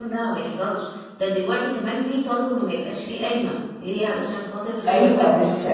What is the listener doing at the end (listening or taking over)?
taking over